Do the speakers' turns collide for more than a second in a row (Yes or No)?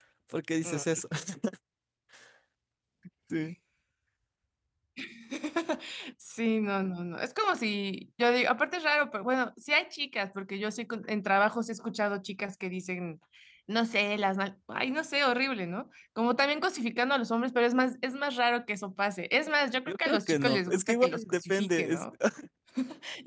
Yes